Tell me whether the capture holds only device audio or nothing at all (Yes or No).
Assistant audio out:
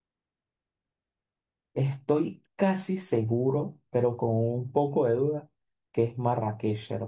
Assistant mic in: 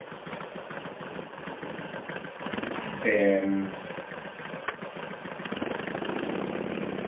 No